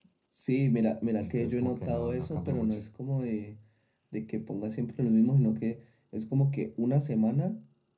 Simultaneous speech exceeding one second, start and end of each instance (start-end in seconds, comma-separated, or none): 1.2-2.8